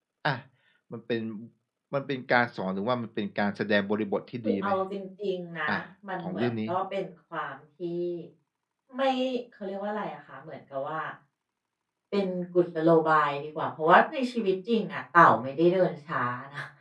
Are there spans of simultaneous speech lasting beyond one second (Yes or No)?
No